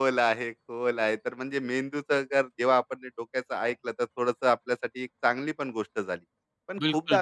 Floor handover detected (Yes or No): No